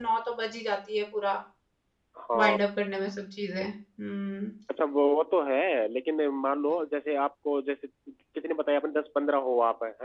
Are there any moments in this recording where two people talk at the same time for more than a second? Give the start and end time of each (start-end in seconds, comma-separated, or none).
none